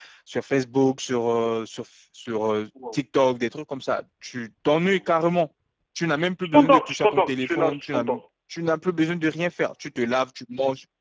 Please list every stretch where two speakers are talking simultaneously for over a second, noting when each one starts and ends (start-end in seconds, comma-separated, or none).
6.4-8.0